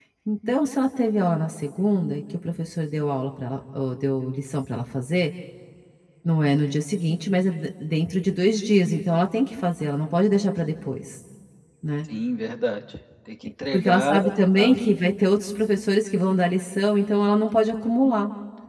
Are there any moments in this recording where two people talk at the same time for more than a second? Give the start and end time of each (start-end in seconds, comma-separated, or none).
13.7-14.9